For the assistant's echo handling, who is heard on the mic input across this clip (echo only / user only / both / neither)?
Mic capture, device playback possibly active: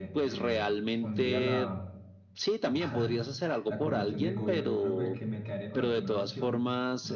both